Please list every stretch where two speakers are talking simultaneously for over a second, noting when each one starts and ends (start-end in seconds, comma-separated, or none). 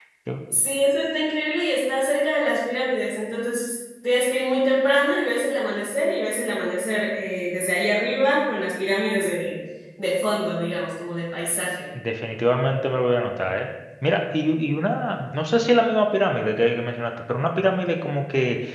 none